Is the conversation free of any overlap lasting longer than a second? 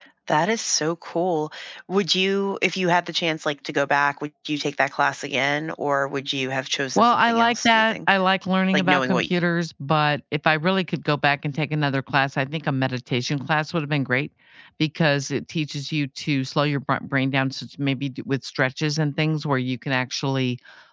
No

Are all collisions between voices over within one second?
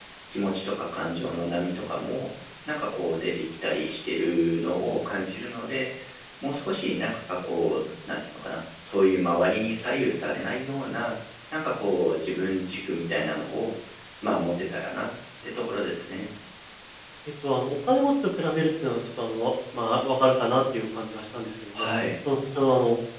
Yes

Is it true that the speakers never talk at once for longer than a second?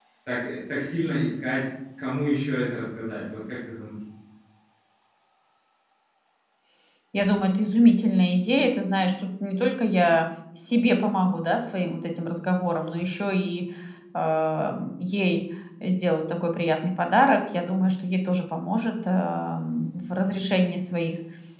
Yes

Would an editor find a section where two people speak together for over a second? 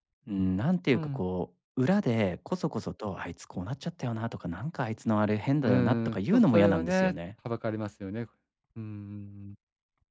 Yes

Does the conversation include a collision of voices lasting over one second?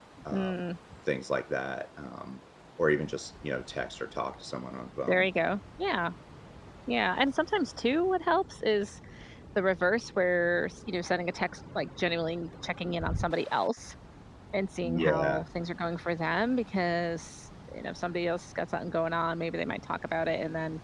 No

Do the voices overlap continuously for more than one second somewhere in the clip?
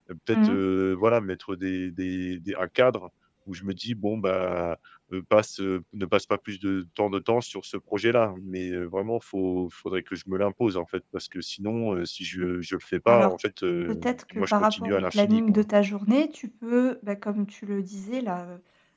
Yes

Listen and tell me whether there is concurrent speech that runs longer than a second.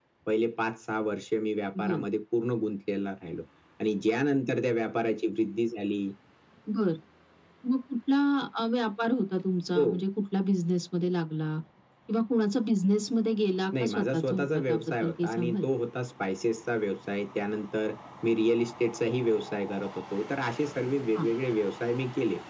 Yes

